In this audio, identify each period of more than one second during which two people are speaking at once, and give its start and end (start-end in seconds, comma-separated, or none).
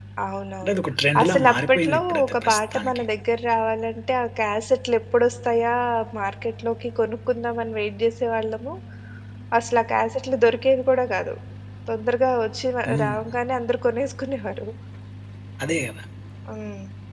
1.2-3.0